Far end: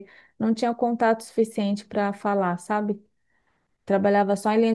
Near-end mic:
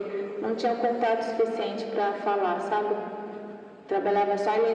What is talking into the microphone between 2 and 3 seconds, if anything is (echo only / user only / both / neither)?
echo only